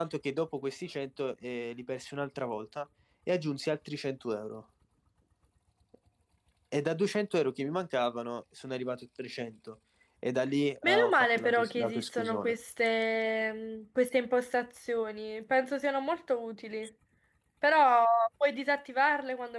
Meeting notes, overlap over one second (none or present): present